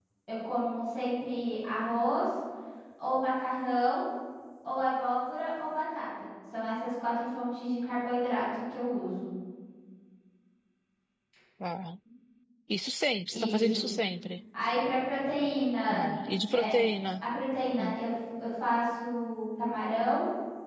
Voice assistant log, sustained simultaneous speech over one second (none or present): none